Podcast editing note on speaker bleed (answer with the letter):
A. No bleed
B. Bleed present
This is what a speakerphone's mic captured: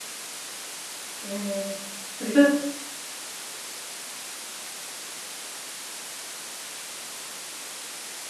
A